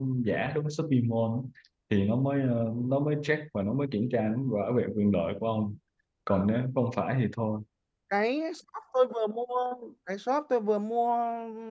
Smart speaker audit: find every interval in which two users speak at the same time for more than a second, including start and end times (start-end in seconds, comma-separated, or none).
none